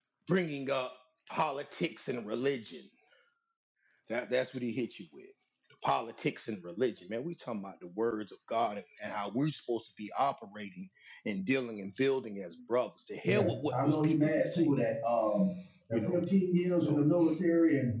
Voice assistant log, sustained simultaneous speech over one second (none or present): present